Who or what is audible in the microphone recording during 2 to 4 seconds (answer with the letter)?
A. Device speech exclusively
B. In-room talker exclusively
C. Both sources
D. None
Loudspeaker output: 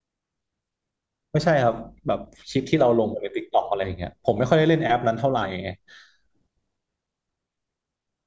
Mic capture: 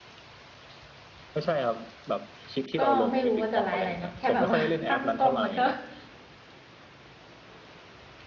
C